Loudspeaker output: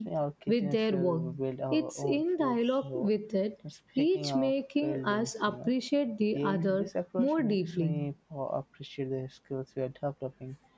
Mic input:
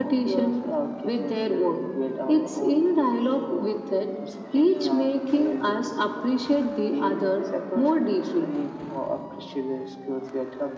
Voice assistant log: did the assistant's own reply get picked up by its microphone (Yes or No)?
Yes